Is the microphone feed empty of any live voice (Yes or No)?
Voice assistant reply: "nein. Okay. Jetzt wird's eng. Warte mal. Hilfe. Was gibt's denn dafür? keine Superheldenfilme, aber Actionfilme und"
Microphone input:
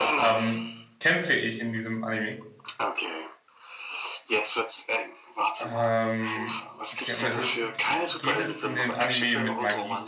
No